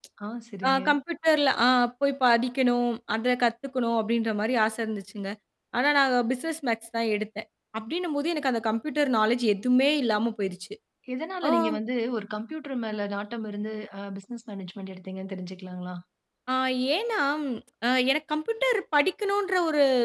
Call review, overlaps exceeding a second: none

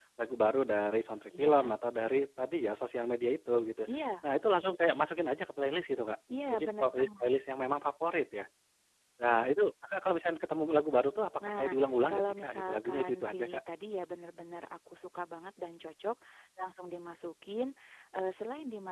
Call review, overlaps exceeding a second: present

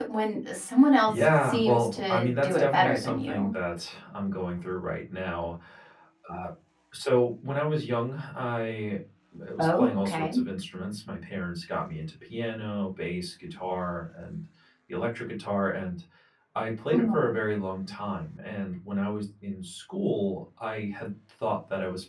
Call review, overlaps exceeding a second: present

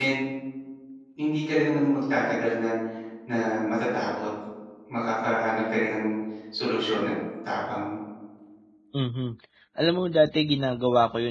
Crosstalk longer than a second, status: none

